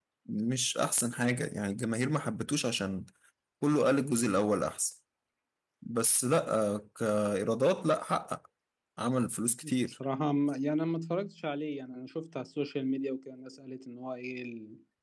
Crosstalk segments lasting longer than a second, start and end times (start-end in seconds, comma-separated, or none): none